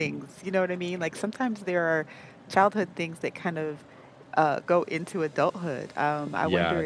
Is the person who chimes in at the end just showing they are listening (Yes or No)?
No